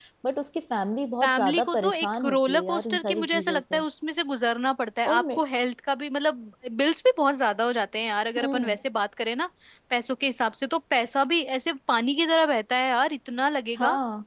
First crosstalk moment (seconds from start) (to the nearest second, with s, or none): 1 s